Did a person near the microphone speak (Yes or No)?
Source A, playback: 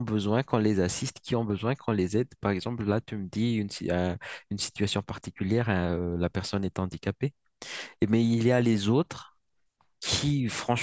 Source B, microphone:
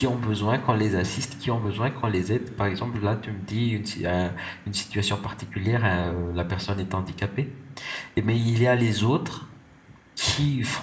No